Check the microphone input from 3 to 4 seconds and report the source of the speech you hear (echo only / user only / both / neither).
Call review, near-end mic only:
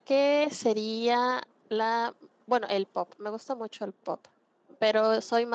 user only